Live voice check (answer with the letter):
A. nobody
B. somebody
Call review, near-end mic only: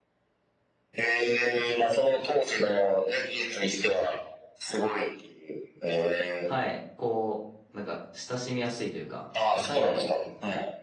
B